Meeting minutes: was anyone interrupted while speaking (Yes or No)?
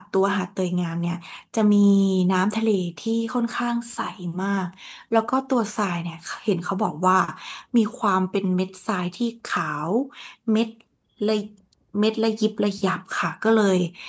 No